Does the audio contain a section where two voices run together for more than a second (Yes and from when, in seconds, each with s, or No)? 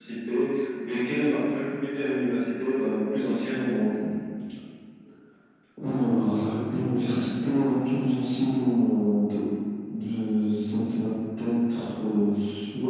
No